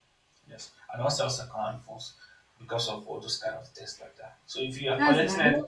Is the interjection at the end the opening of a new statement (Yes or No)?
No